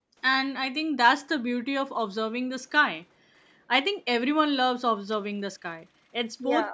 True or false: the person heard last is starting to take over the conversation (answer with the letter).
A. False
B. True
A